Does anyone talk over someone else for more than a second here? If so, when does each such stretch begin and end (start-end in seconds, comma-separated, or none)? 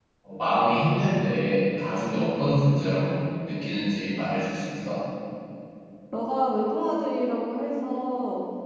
none